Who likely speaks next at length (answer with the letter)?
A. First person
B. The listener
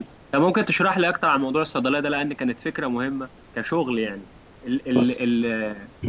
A